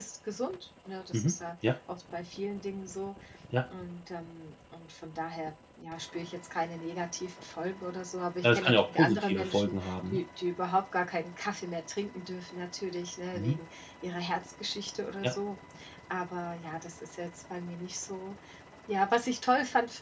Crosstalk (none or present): present